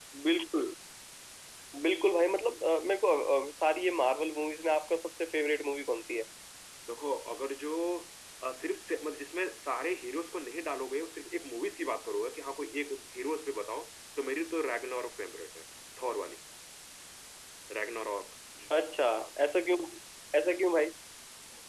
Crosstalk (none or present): none